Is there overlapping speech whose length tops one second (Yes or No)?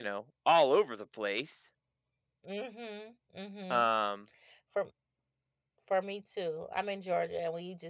No